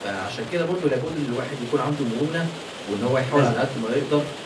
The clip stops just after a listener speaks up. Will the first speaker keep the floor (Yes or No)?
Yes